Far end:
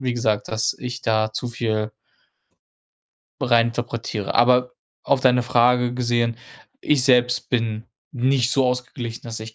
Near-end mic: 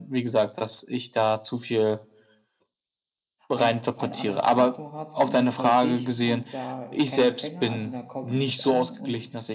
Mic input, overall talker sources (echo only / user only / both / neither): both